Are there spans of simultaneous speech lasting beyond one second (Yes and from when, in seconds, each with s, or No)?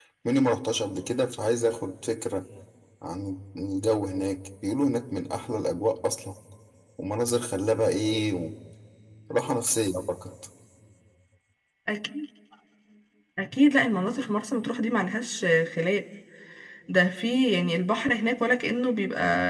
No